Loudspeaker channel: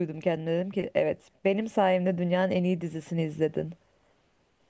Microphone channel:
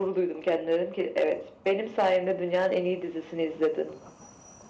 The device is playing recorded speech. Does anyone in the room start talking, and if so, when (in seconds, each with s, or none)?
none